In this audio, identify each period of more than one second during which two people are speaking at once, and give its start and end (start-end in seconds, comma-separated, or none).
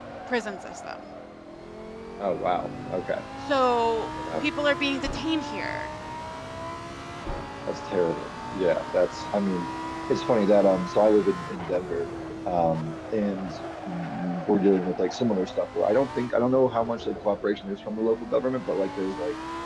none